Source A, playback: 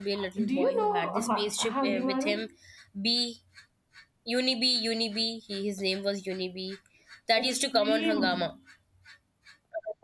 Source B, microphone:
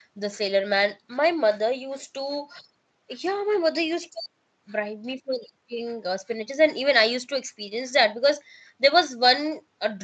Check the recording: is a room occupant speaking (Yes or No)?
Yes